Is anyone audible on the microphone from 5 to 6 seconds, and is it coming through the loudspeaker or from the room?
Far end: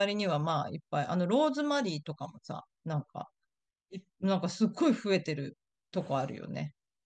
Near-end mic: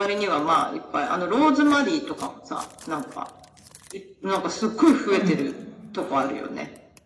both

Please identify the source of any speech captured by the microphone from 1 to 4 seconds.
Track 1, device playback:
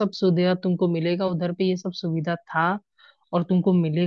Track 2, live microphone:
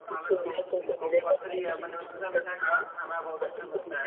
both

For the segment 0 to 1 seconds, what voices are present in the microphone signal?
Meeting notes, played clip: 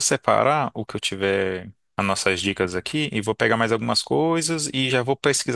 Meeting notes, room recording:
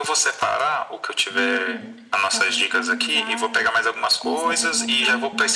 echo only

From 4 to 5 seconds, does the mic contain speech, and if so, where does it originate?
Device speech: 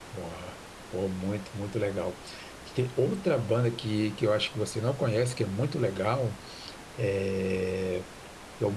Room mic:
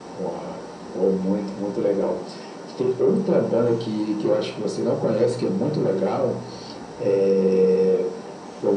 echo only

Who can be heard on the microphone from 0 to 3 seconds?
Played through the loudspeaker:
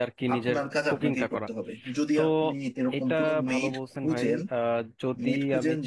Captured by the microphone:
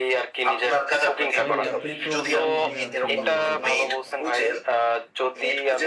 both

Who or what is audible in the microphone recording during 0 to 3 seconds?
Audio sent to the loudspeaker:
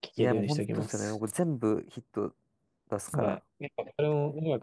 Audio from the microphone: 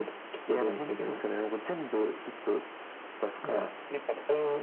echo only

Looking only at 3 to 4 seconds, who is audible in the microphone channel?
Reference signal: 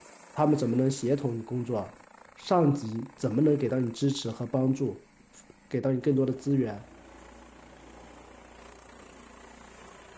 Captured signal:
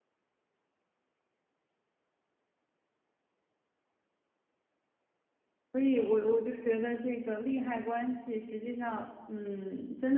neither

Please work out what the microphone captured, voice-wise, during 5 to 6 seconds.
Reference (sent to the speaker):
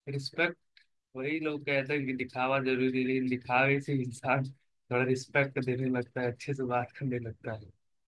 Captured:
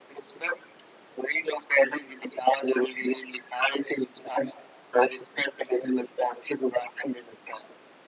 echo only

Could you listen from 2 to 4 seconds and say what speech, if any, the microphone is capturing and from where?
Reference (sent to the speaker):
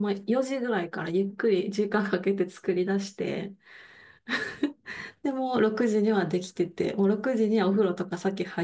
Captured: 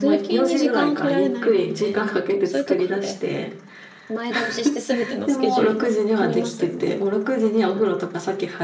both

